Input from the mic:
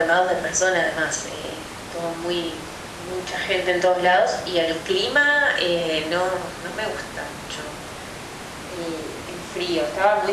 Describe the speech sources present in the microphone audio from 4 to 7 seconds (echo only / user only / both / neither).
echo only